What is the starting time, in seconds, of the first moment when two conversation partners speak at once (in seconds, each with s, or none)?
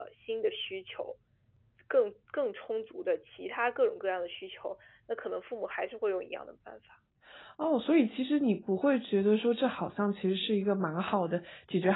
none